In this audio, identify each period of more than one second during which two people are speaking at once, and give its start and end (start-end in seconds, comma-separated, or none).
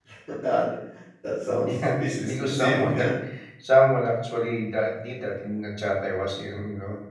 1.6-3.0